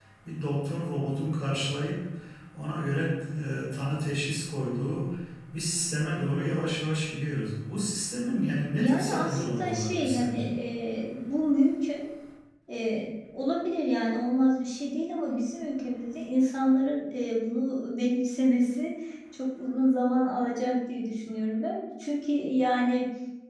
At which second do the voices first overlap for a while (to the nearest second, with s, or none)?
9 s